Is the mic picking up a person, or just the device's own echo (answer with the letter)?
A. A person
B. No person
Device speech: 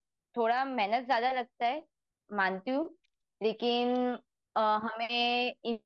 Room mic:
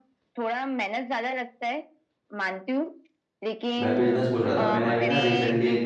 A